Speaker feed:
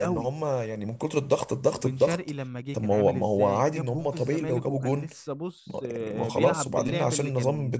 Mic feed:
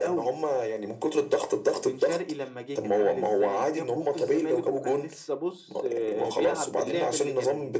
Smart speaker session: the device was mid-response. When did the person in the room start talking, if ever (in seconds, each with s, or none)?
none